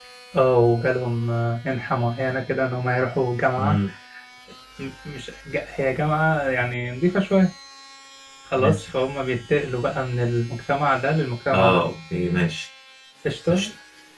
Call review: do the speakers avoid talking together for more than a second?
Yes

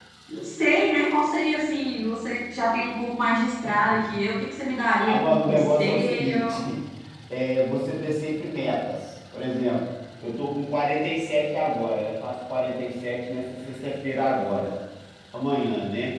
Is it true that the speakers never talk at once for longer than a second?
No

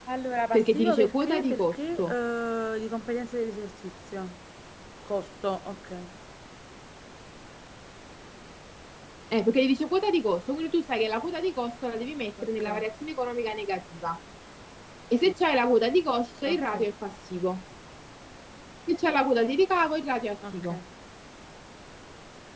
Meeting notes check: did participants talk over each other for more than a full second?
Yes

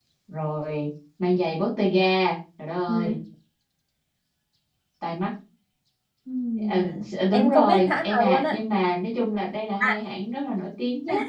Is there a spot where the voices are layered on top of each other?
Yes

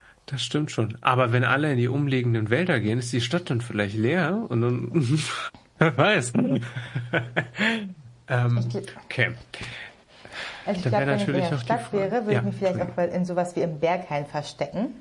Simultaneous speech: Yes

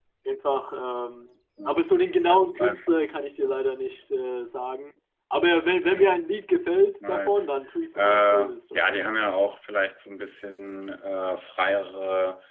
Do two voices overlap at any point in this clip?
Yes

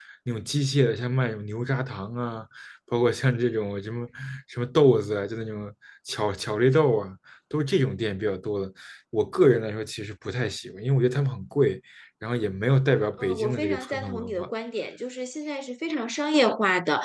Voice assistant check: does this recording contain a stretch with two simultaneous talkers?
Yes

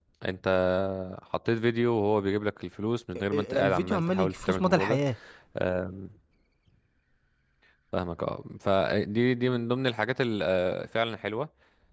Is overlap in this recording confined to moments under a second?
No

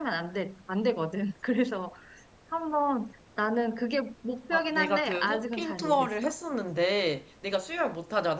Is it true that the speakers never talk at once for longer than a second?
No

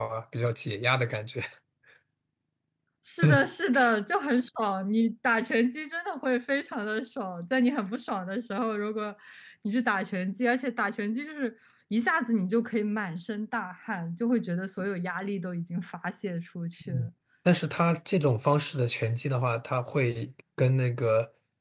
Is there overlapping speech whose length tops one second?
No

